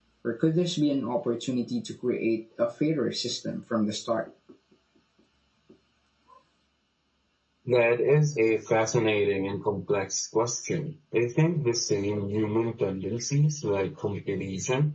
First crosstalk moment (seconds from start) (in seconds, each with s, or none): none